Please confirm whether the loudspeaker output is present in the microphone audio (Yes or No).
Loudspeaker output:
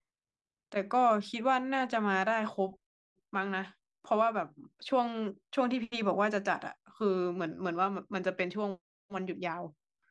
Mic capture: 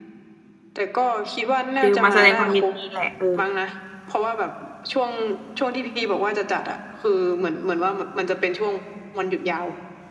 Yes